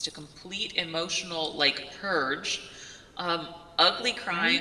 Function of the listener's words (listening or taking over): listening